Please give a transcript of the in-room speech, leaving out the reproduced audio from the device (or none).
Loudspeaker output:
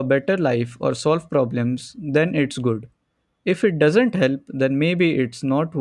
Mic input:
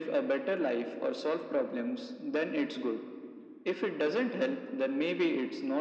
none